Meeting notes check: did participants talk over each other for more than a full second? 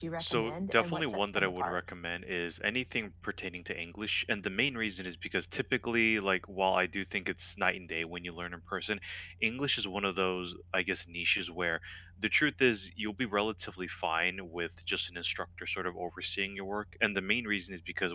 Yes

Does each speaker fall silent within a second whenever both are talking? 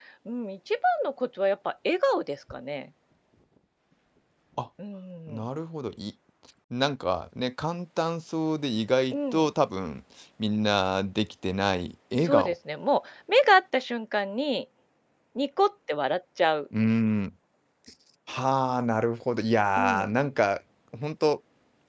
Yes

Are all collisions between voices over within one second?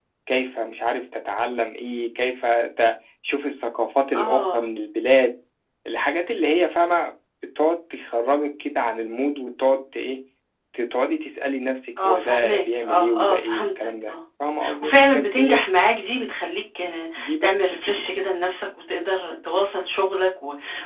No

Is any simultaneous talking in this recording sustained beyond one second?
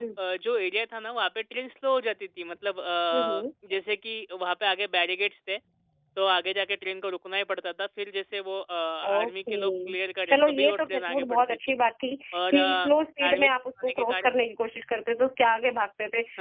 Yes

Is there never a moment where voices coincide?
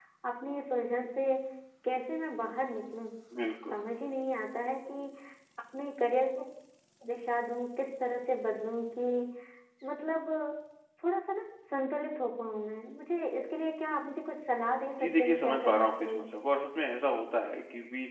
No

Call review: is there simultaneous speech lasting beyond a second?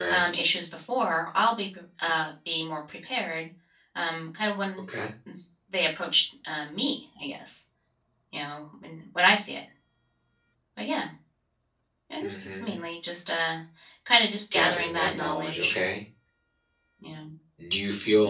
Yes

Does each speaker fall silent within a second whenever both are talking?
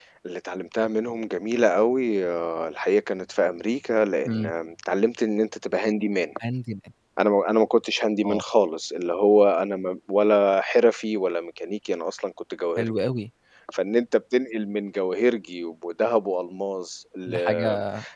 Yes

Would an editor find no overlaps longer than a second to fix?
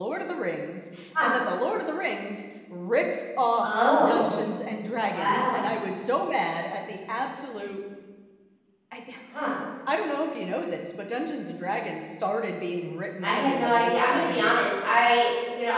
No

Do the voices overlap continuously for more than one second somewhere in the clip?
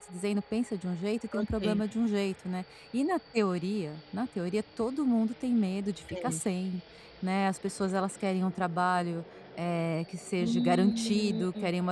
Yes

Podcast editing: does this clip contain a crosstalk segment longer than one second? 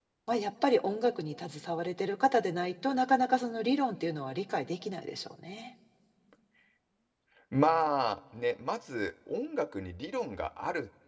No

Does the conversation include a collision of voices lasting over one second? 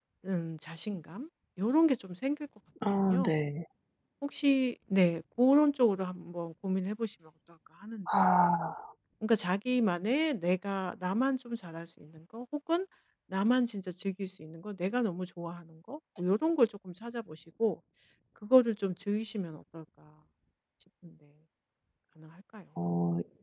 No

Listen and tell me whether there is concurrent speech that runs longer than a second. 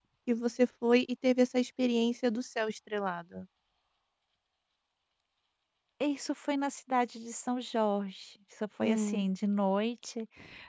No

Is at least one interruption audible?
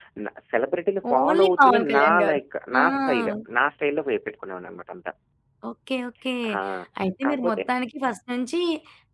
Yes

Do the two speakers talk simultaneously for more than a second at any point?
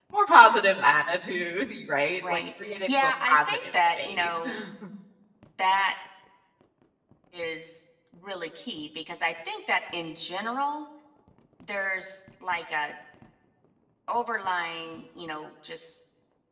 Yes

